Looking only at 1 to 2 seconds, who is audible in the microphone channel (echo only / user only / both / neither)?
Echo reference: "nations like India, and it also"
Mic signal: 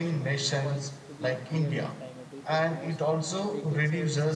both